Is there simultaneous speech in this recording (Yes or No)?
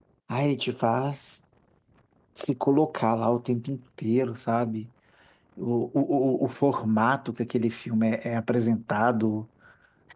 No